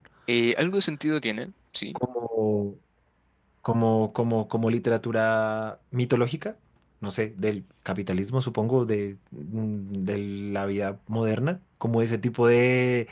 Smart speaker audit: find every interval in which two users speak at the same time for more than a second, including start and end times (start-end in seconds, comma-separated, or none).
none